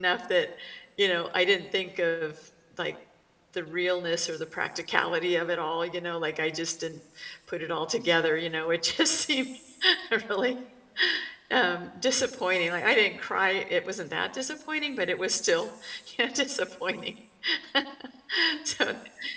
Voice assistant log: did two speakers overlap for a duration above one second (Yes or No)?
No